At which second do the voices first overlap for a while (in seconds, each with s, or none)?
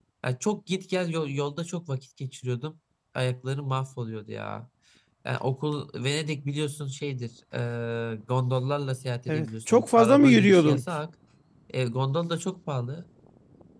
9.3 s